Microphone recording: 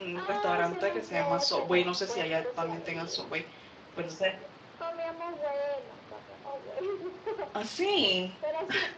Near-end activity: present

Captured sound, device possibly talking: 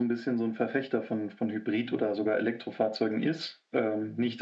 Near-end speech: none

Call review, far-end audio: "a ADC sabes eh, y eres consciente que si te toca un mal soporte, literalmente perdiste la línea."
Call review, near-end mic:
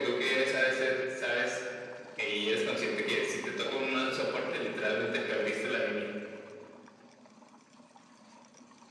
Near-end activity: none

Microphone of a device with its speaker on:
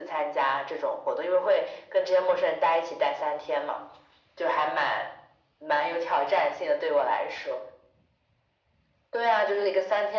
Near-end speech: none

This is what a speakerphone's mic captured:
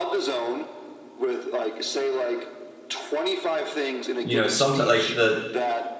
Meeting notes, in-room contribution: present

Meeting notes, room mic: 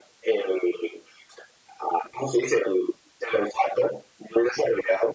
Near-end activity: none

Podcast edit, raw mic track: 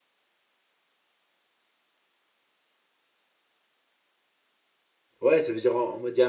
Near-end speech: present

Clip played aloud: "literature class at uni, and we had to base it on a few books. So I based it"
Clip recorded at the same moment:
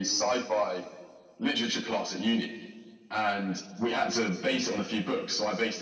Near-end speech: none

